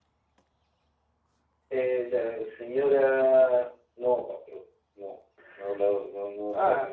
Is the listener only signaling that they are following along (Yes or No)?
No